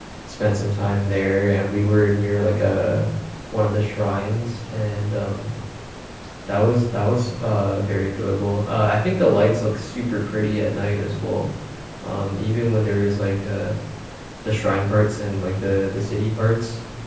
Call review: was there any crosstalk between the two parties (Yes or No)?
No